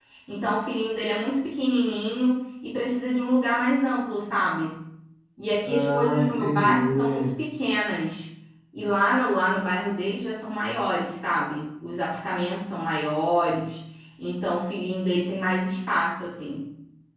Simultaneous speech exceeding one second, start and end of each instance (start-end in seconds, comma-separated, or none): 5.6-7.3